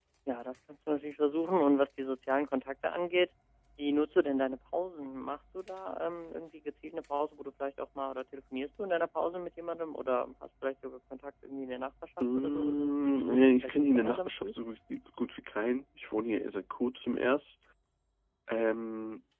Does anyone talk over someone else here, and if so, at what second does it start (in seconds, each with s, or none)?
12.2 s